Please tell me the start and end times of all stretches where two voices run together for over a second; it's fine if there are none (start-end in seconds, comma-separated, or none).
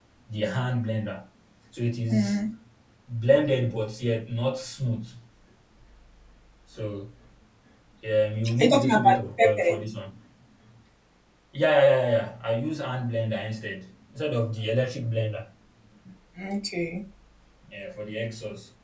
8.5-9.7